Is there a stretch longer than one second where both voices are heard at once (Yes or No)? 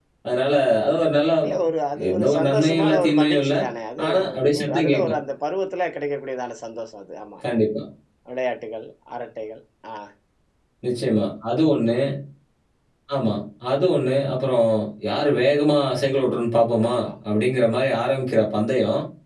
Yes